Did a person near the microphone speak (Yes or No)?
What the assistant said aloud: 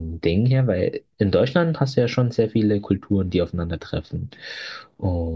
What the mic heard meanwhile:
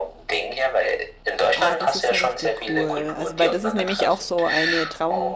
Yes